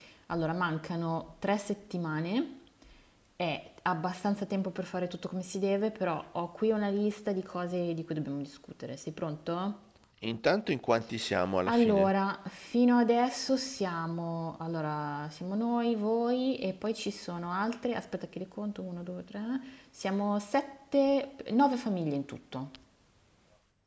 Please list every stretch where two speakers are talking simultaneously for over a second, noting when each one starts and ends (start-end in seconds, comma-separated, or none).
none